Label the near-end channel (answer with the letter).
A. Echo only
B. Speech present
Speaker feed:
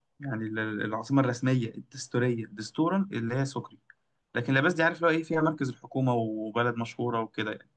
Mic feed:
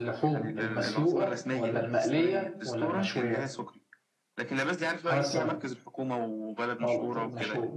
B